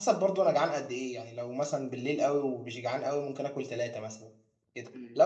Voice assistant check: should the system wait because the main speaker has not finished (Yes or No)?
Yes